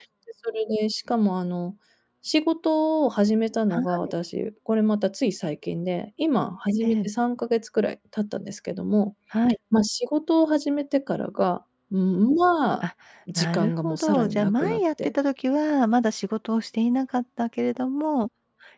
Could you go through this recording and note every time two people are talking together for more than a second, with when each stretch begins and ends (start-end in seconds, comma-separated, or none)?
13.4-15.1